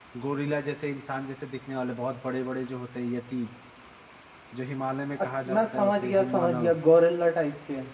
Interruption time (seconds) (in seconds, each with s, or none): 5.2 s